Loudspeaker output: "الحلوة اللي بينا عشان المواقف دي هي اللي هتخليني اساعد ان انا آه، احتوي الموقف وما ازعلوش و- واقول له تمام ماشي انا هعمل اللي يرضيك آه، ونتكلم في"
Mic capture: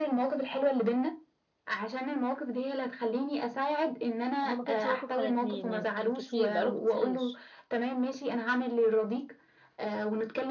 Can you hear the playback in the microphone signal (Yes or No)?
Yes